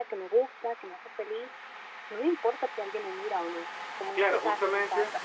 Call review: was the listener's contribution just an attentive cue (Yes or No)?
No